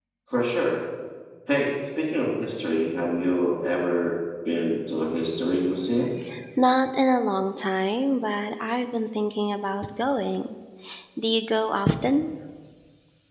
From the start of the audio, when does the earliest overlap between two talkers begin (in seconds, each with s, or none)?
none